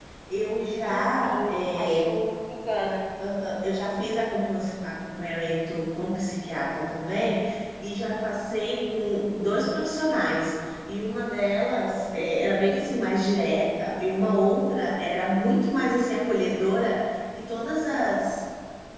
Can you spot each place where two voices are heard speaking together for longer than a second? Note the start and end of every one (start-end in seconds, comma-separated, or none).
0.9-2.1